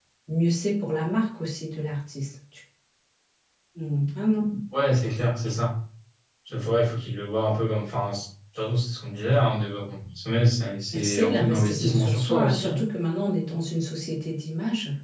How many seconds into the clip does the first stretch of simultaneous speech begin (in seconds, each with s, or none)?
10.9 s